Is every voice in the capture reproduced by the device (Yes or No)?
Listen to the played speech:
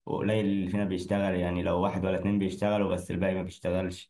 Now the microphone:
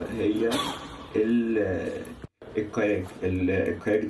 No